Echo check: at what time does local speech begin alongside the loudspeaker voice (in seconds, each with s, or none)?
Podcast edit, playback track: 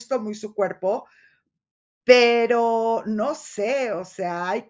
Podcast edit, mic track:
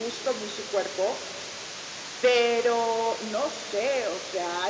none